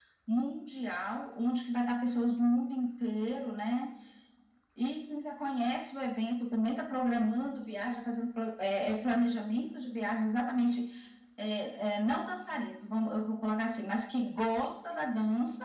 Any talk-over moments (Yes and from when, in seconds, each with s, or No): No